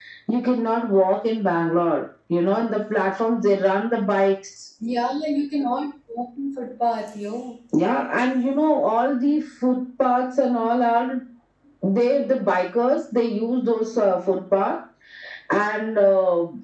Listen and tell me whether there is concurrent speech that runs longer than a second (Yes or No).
No